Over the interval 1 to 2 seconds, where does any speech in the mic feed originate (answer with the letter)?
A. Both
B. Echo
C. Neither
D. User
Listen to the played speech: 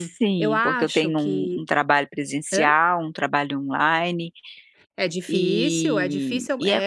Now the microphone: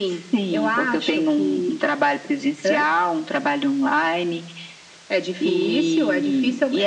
B